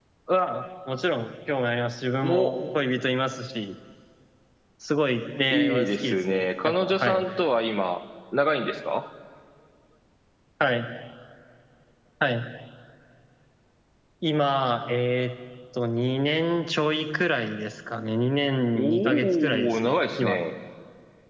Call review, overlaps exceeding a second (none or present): present